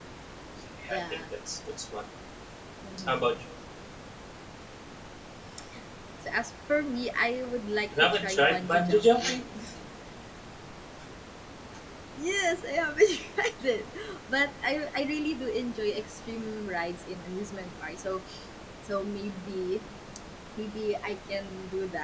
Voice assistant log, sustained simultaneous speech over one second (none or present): present